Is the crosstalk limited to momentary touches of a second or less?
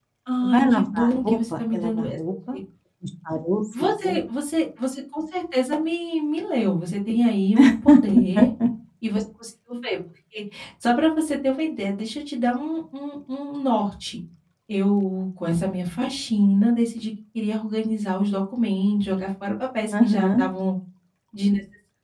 No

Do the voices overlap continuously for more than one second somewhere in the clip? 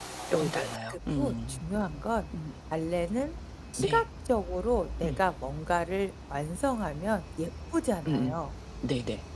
Yes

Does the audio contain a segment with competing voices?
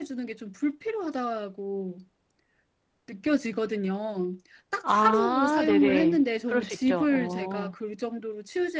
Yes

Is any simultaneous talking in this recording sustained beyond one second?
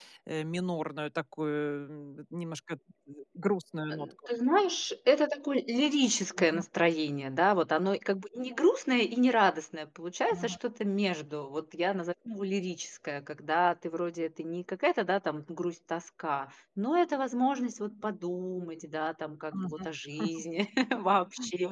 No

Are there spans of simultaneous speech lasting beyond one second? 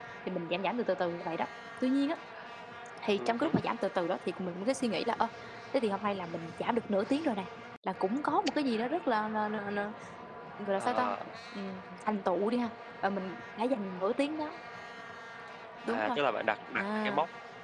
No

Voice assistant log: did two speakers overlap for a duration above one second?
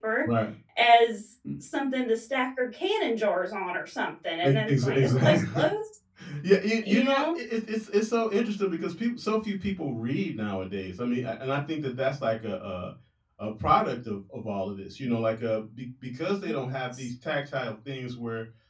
Yes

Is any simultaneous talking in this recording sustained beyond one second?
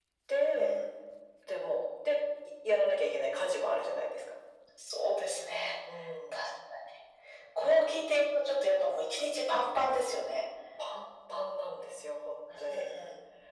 No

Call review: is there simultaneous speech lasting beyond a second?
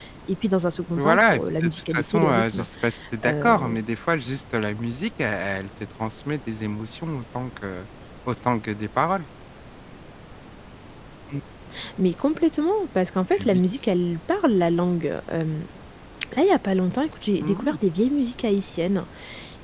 Yes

